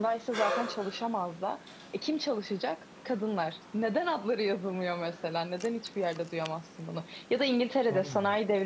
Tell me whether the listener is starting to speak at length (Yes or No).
No